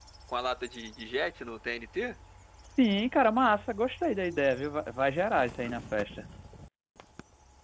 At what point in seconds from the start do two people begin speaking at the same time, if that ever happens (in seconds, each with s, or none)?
none